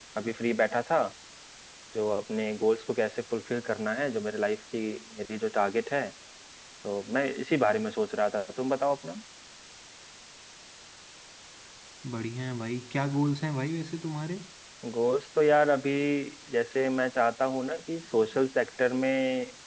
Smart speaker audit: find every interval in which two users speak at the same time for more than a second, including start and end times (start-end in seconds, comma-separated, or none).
none